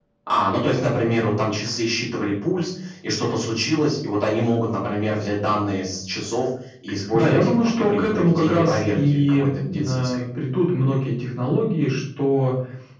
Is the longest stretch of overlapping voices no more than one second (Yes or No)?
No